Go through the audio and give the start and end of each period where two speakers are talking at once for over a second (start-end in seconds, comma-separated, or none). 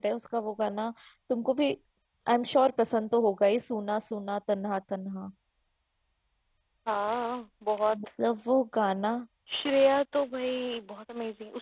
none